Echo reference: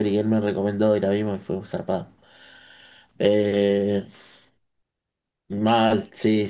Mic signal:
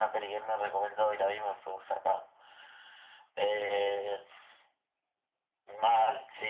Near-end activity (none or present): none